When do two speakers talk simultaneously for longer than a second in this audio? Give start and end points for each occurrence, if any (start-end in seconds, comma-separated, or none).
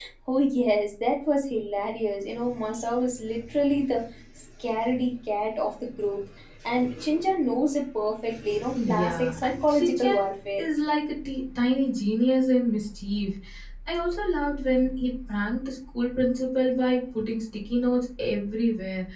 8.8-10.6